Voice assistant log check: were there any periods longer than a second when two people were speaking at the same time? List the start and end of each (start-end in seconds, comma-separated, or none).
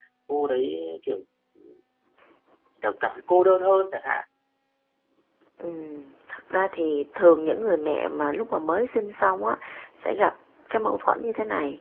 none